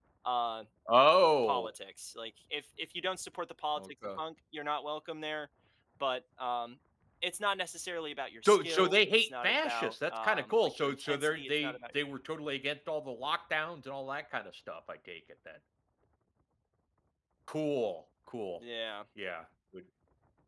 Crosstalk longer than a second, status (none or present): present